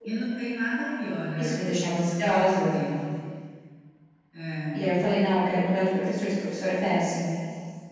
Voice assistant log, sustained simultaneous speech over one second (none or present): present